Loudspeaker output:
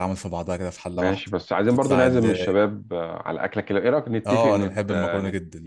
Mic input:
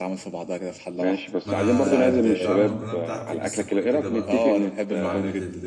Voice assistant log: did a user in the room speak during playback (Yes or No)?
Yes